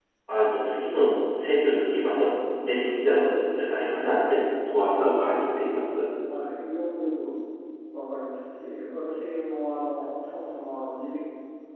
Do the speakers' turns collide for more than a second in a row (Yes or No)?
No